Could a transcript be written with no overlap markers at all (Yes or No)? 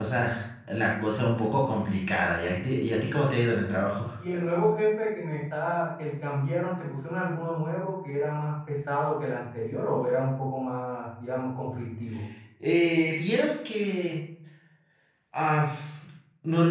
Yes